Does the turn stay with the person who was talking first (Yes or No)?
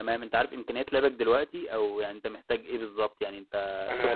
No